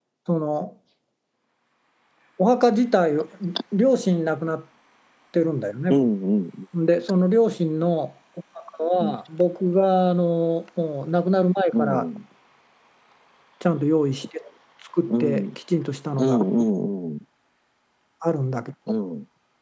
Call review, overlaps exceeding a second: none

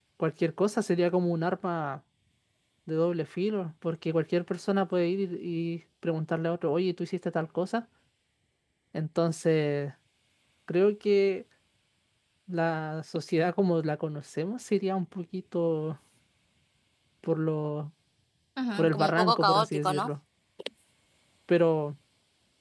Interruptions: present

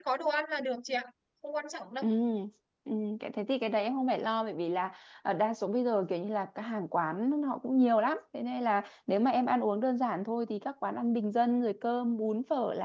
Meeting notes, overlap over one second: none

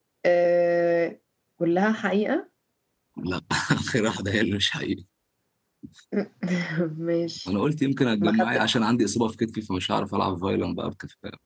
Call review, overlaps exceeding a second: none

